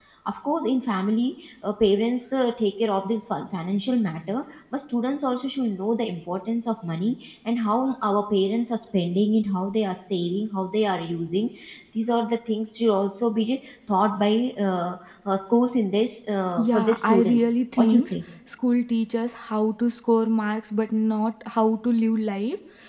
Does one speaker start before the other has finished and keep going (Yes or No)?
Yes